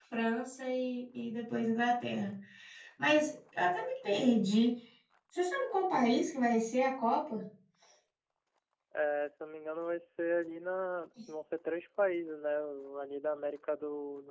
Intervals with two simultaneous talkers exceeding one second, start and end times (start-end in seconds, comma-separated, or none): none